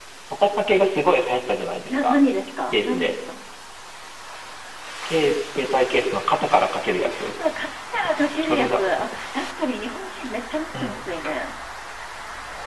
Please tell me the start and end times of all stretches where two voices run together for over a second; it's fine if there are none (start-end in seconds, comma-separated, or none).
none